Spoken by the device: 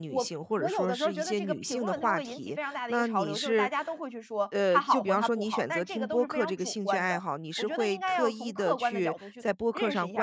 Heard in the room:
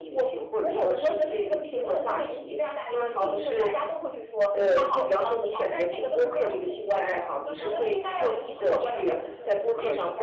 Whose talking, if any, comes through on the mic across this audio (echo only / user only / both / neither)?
both